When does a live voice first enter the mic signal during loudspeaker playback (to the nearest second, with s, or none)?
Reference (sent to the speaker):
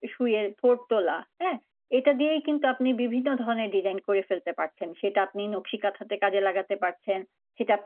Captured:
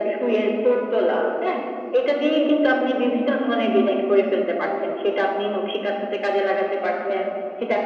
none